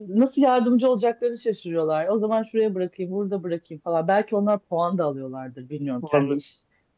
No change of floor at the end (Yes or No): Yes